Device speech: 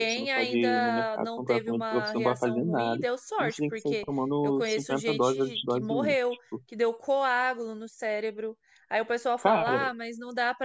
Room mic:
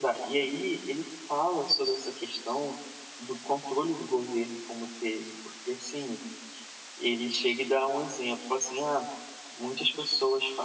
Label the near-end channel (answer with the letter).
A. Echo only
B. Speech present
B